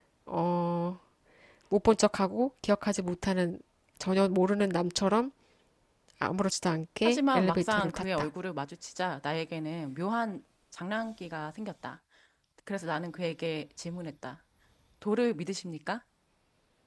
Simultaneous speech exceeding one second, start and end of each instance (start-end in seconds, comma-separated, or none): 7.0-8.3